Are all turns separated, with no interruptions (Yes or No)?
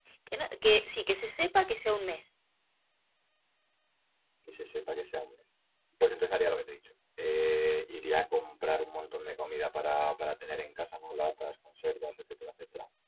Yes